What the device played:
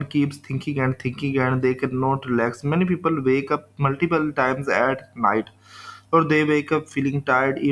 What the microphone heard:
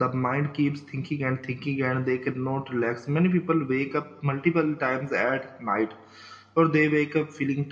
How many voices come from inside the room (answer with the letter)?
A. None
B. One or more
A